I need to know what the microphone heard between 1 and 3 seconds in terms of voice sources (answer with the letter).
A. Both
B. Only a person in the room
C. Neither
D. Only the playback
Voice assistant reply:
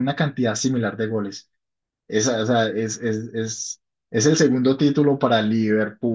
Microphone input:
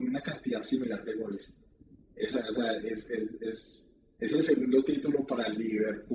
D